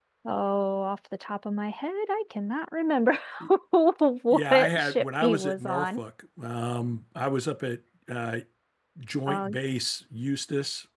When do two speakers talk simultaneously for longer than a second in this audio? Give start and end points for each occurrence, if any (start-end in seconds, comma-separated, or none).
4.3-6.0